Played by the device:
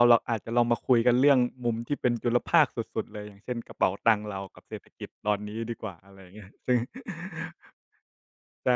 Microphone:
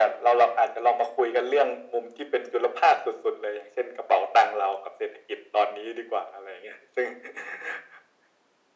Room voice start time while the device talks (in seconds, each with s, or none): none